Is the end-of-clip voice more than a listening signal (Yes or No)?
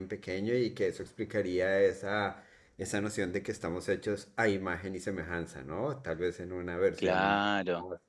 Yes